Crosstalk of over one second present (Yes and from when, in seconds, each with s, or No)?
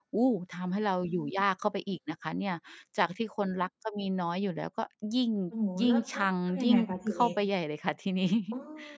Yes, from 5.8 s